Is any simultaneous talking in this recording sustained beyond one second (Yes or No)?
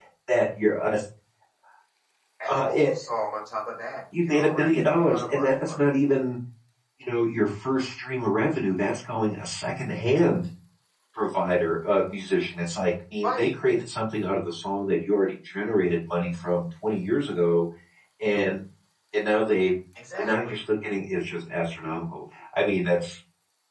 Yes